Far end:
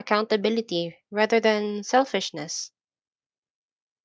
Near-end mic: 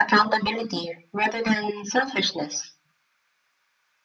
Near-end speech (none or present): none